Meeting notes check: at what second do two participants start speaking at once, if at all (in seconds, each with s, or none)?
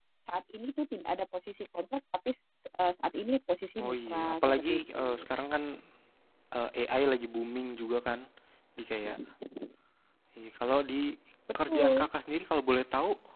3.8 s